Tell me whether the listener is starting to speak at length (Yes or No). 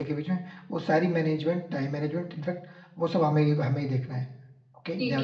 Yes